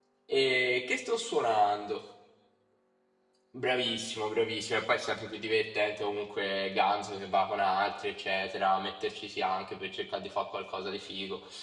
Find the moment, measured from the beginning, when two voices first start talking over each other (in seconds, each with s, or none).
none